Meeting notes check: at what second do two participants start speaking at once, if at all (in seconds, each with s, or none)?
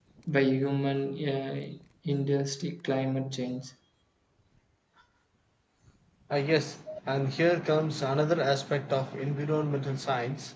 none